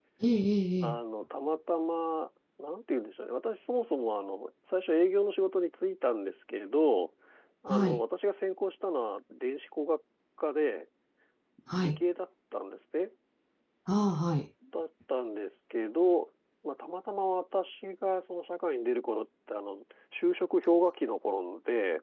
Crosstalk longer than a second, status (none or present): none